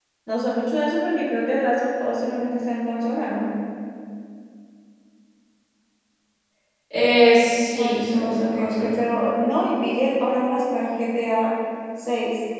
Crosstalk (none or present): present